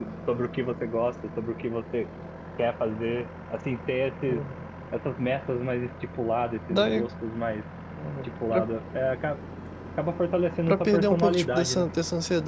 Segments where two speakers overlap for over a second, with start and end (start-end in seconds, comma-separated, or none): 10.7-11.9